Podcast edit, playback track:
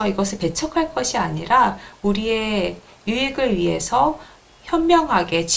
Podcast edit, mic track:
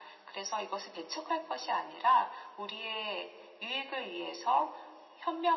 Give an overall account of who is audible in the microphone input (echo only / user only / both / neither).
echo only